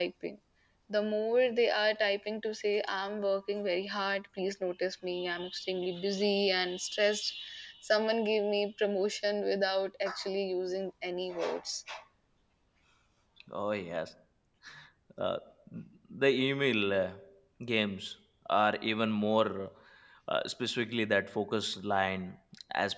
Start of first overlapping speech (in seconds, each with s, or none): none